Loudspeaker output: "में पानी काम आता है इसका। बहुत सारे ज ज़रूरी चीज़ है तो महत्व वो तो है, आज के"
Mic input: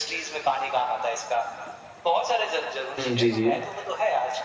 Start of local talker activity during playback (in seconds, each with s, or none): 3.0 s